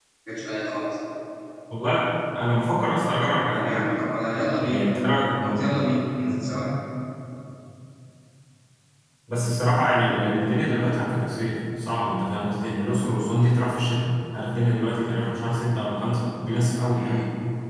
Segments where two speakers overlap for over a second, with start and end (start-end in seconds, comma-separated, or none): none